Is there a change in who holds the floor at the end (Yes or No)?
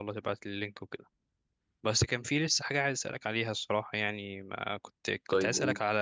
No